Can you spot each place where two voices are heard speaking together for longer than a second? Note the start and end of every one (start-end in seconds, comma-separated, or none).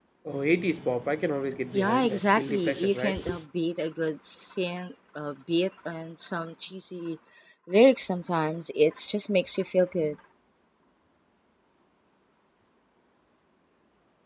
1.7-3.1